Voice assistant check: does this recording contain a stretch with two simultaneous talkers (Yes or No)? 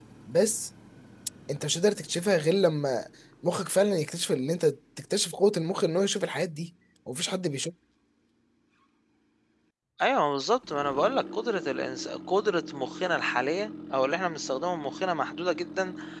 No